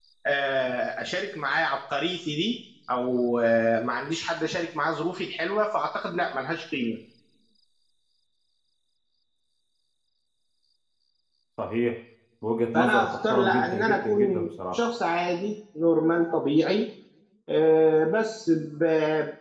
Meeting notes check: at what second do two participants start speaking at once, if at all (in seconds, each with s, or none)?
12.7 s